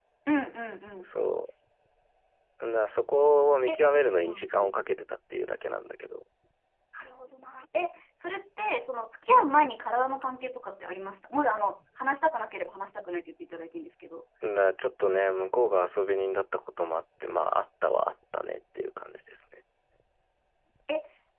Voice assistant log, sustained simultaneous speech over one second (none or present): none